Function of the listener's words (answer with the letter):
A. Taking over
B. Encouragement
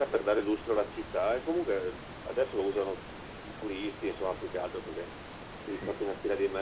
B